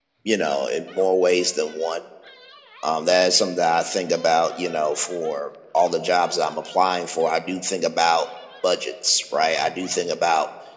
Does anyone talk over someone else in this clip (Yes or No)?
No